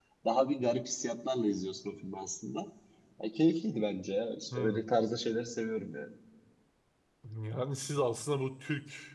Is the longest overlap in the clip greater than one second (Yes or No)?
No